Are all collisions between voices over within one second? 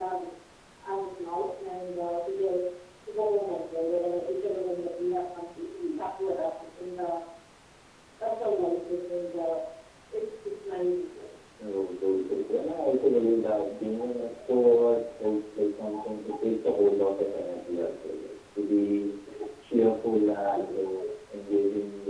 Yes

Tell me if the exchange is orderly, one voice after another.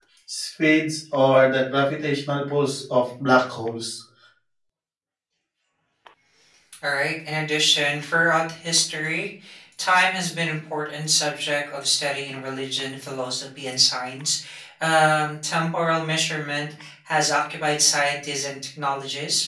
Yes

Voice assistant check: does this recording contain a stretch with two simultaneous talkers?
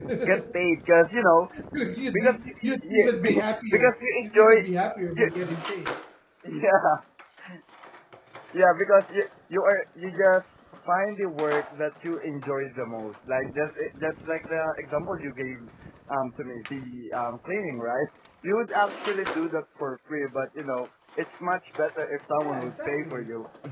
Yes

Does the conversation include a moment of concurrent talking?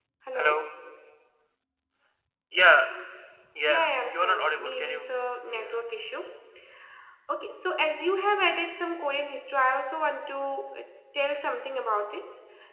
Yes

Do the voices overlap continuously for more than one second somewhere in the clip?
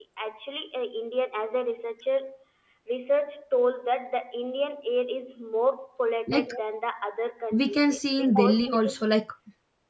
Yes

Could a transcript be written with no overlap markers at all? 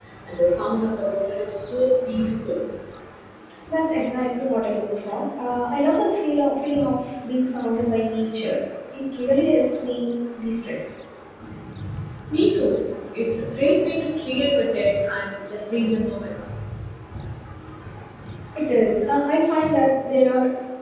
Yes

